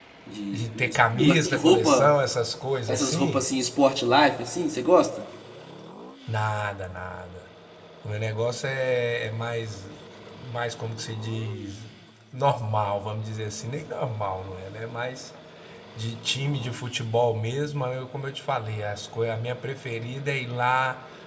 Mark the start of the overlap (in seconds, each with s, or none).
0.5 s